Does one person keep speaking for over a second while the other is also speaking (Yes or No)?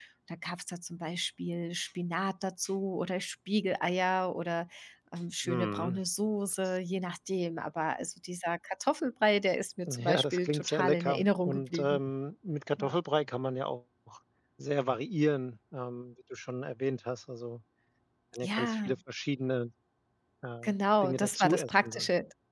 Yes